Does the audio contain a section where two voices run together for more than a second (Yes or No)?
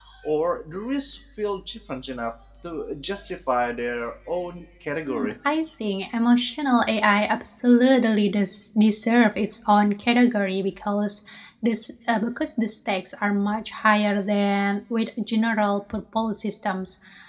No